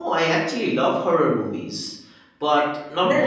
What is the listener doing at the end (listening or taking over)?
taking over